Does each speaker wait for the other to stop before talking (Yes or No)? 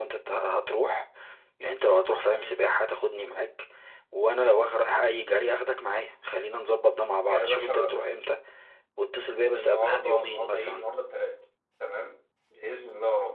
No